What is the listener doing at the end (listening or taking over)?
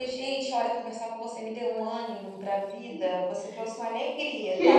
taking over